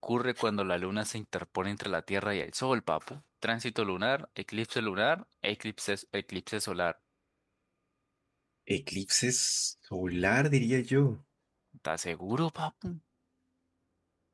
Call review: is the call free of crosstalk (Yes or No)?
Yes